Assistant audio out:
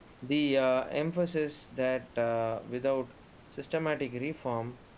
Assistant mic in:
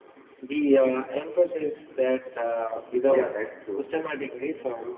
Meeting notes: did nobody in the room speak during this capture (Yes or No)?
No